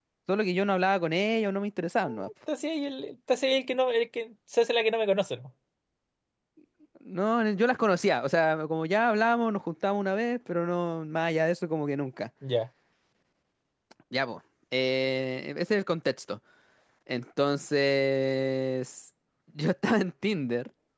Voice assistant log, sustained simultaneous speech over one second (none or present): none